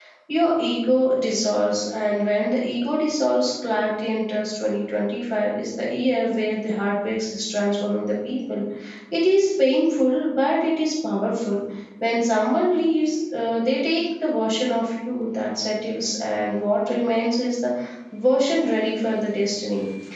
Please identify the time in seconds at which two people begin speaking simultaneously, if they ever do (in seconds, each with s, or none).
none